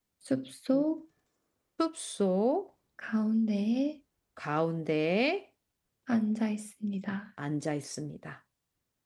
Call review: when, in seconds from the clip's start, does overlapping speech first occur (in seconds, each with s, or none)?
none